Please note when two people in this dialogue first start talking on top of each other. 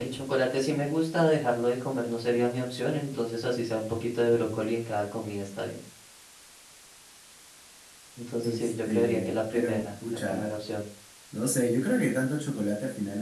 8.4 s

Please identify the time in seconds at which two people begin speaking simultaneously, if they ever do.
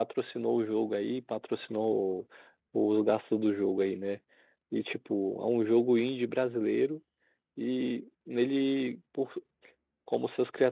none

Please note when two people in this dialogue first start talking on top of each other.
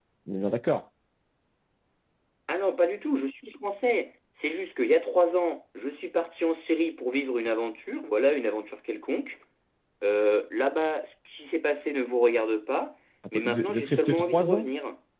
13.2 s

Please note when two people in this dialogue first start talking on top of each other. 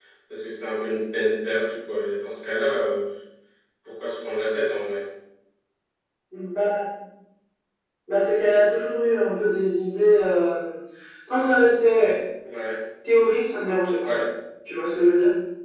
none

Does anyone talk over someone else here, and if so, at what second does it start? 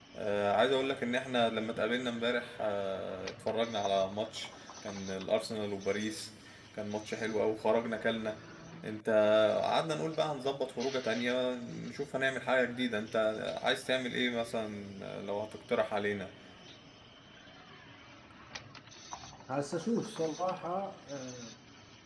none

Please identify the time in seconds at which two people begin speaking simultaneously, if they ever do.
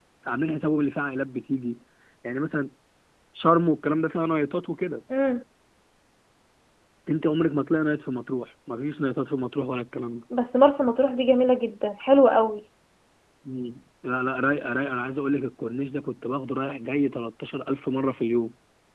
none

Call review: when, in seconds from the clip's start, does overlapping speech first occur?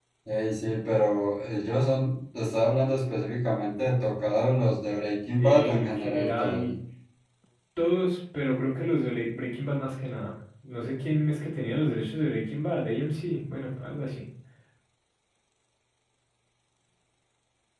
5.4 s

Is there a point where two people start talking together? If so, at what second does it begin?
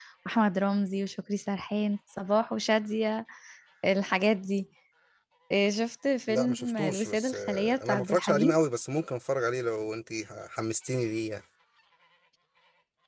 6.3 s

